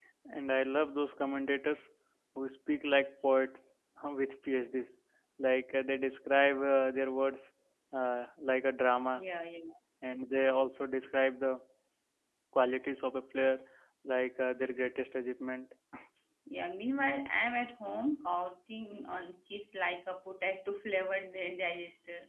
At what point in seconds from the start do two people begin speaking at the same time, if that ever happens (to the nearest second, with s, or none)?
none